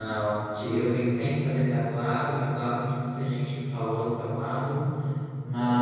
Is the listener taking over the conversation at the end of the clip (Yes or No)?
No